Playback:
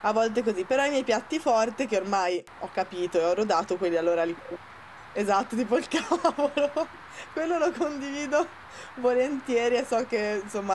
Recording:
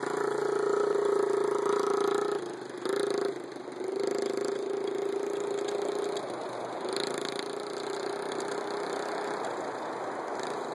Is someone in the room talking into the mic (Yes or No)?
No